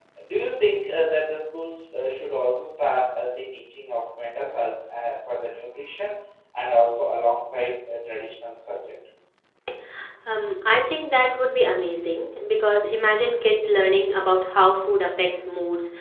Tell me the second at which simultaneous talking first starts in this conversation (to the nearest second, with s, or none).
none